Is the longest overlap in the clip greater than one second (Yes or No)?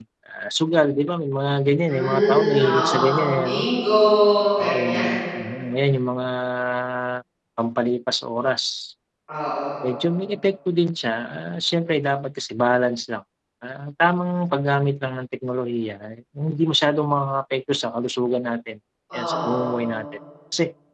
Yes